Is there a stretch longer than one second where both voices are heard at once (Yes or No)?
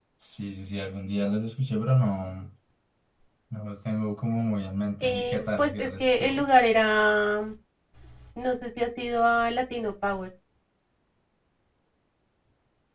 Yes